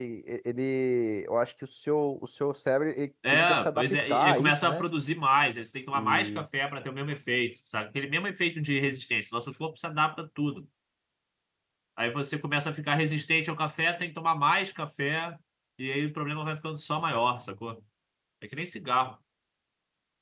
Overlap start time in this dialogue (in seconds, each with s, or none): 3.3 s